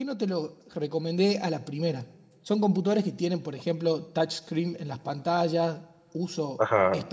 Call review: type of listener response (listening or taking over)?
listening